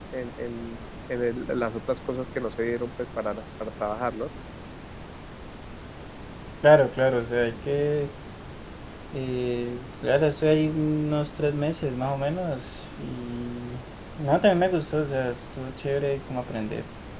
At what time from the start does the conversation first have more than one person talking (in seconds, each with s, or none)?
none